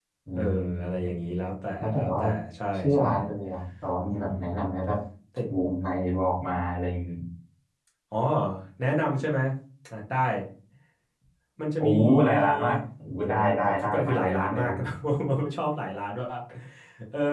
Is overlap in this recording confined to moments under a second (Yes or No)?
No